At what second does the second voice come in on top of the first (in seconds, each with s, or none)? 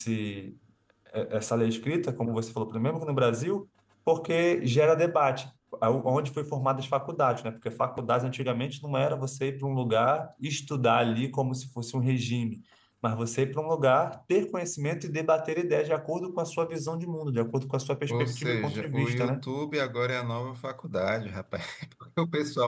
18.1 s